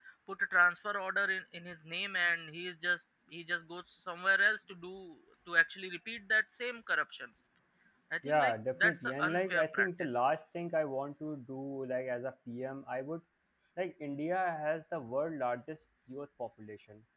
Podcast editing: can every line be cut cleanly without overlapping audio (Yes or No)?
No